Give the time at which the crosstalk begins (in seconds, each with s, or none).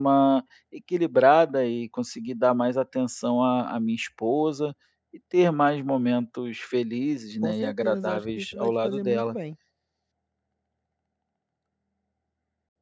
7.4 s